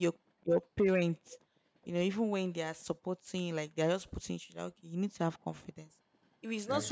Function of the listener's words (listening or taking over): listening